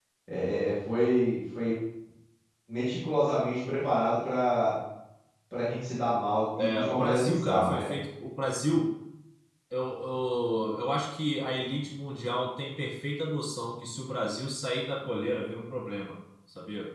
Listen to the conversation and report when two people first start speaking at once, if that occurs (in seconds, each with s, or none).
6.6 s